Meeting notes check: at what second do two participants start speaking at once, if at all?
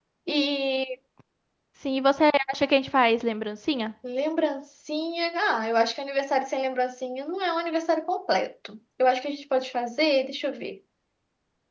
none

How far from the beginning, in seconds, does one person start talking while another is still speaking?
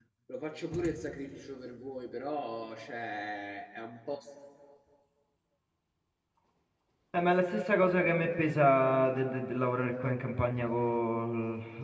none

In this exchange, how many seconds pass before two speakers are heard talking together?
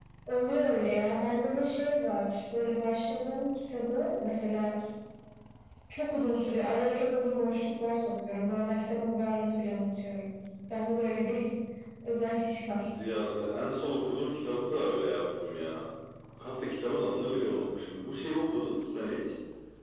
none

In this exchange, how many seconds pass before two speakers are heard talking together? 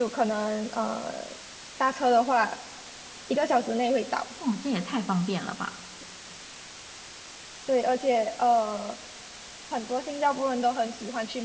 none

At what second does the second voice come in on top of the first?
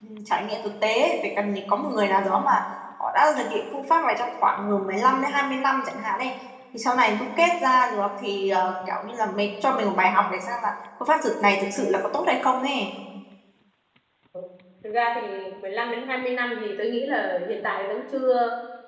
none

